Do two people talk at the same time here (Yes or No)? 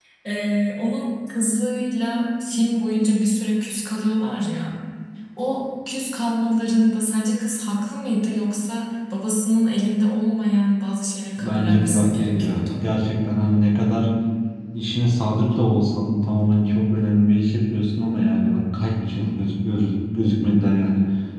Yes